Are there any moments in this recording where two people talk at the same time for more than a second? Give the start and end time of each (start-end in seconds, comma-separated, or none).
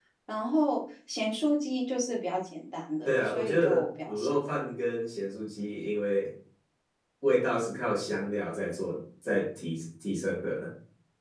3.0-4.4